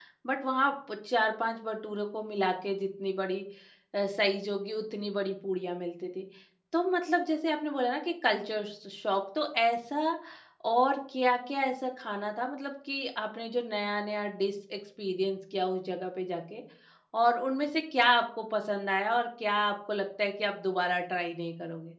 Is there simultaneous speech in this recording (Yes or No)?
No